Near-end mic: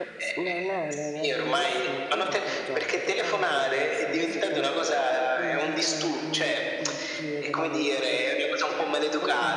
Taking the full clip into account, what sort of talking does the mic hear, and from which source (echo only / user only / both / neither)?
both